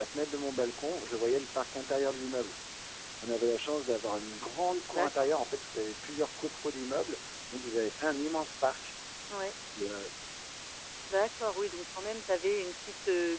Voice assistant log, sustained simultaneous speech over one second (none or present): none